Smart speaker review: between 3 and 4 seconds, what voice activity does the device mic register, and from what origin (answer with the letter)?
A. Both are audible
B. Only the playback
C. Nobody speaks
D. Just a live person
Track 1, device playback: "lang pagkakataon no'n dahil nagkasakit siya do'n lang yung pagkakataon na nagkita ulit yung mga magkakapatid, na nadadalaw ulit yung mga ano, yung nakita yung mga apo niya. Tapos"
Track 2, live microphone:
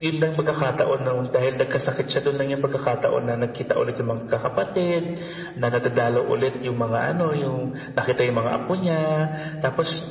B